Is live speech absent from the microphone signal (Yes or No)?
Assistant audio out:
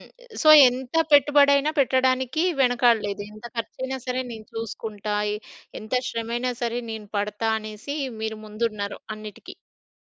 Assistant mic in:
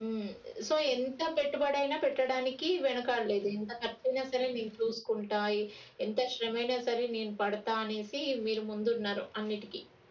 Yes